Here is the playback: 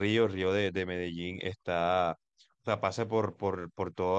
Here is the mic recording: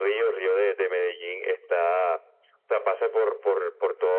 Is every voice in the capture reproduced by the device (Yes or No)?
Yes